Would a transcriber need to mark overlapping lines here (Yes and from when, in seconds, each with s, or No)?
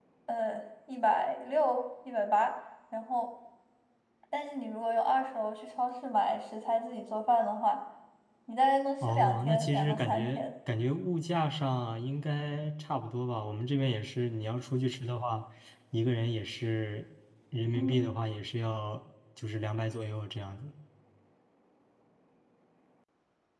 Yes, from 9.1 s